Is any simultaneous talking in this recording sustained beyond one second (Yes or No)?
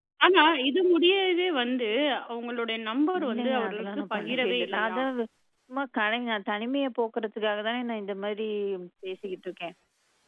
Yes